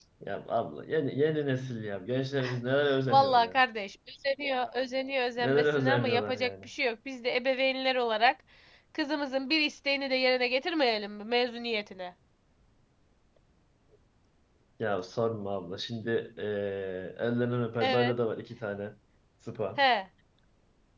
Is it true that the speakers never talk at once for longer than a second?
No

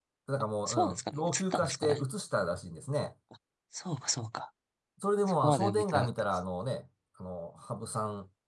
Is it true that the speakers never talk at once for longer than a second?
No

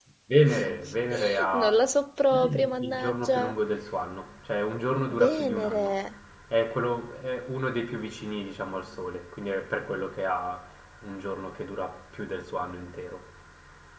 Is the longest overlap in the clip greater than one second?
Yes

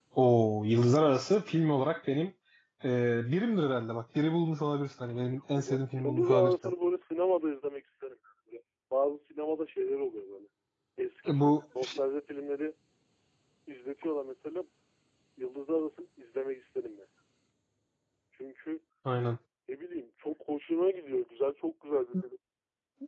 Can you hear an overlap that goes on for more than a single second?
Yes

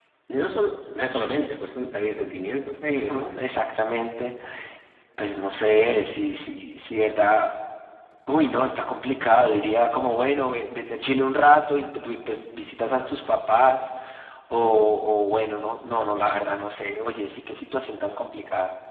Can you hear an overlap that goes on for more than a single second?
No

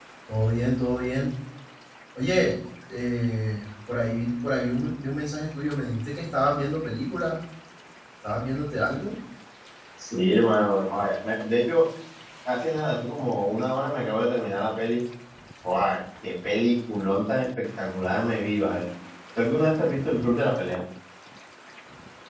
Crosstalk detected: No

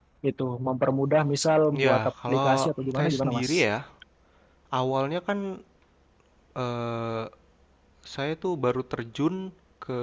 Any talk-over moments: Yes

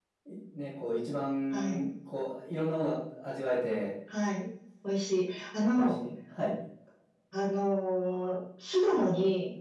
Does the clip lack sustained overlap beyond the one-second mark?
Yes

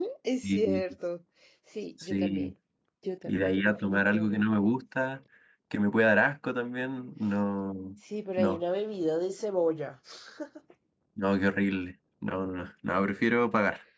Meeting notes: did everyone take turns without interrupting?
No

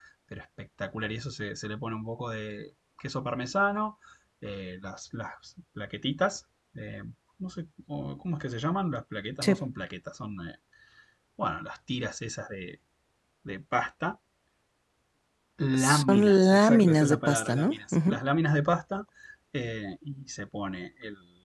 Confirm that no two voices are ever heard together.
No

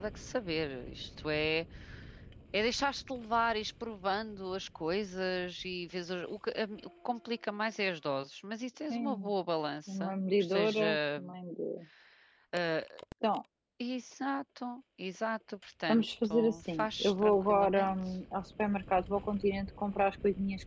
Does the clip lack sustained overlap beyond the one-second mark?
No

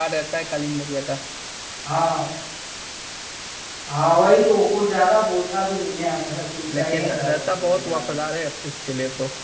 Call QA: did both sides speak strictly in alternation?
No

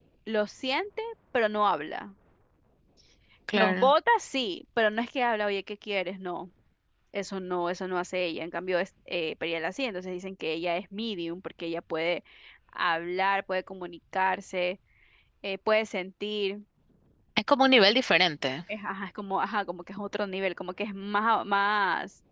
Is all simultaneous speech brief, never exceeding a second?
Yes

